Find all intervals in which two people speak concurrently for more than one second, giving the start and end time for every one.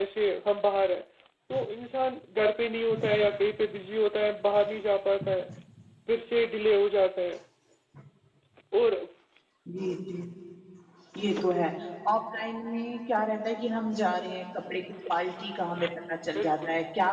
none

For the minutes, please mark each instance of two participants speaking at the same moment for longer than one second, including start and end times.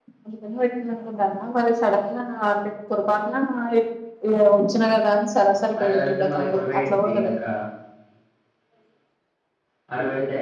5.8-7.3

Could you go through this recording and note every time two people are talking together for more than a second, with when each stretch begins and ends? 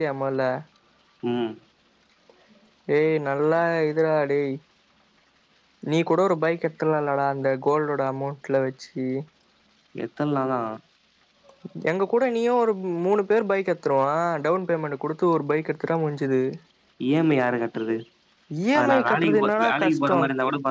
18.8-20.1

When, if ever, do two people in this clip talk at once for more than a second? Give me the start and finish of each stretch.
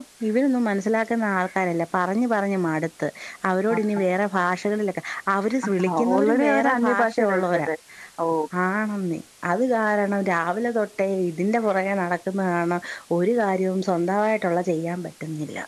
5.8-7.7

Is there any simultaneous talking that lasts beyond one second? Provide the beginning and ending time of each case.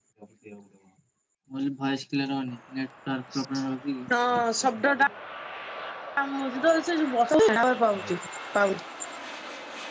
none

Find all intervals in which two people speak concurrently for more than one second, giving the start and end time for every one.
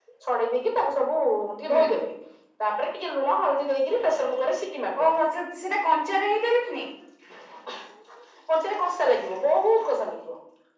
none

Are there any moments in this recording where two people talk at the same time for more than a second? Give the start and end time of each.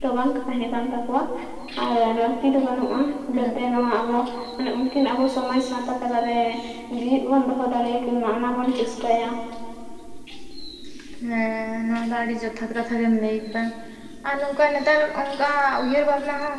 none

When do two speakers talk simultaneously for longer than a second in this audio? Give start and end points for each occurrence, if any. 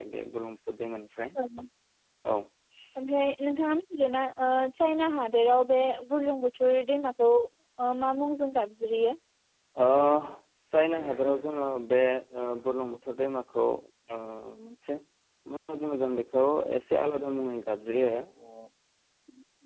none

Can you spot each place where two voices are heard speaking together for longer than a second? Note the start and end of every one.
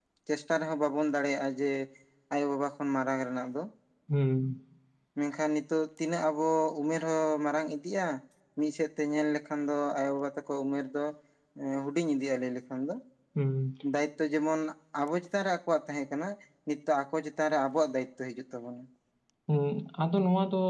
none

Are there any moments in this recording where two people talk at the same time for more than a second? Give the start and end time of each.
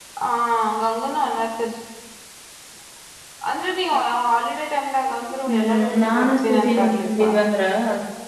5.5-7.3

